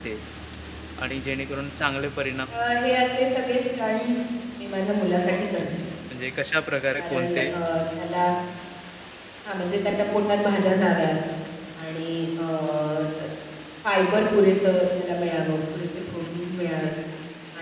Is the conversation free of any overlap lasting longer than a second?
Yes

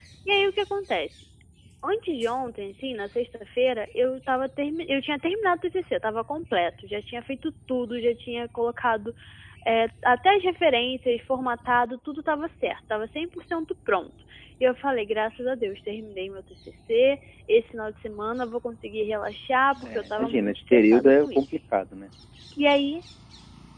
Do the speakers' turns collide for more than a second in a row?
Yes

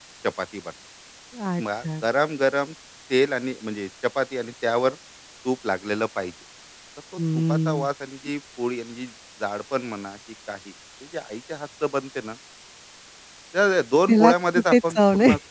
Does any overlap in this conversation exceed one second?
Yes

